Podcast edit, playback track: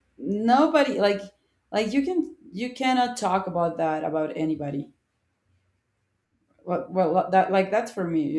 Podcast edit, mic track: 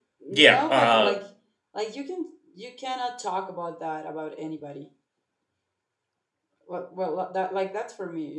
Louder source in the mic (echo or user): user